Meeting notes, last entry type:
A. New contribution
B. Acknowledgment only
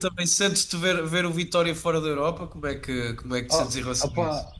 A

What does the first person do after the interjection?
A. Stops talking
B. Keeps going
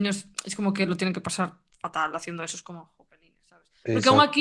B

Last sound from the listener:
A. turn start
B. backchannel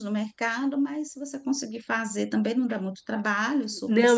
A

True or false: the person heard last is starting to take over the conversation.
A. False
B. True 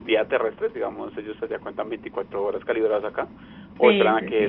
B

